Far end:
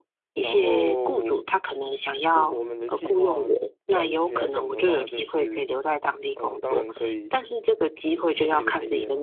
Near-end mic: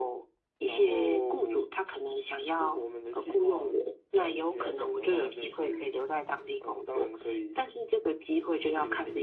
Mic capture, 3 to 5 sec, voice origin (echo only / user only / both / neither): echo only